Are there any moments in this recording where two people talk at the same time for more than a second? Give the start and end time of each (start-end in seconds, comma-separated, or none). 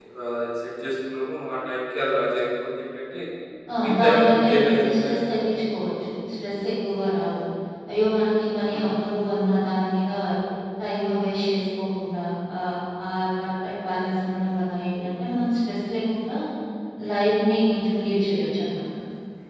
3.8-5.2